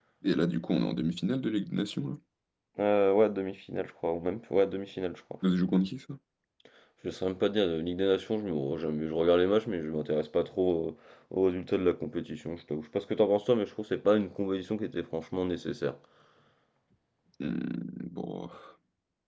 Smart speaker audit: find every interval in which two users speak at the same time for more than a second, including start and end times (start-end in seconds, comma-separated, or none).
none